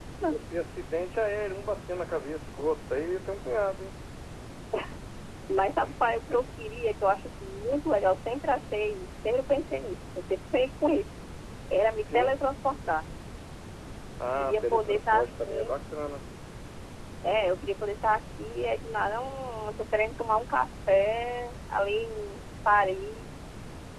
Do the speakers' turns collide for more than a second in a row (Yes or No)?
Yes